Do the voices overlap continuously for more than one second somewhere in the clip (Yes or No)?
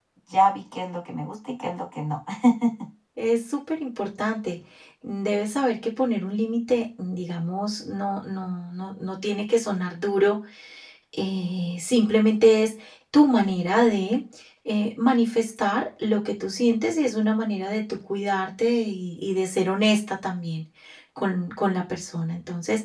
No